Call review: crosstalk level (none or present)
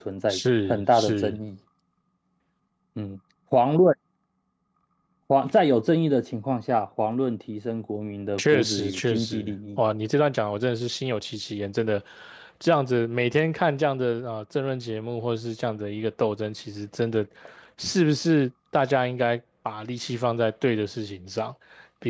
present